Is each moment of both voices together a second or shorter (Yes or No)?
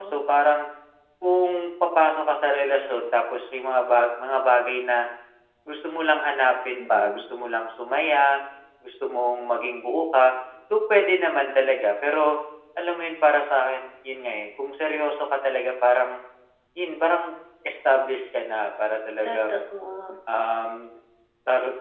Yes